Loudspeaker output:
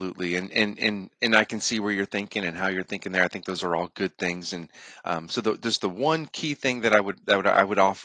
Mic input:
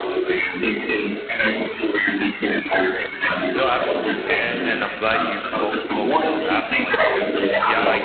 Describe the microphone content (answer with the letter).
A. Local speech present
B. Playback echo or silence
A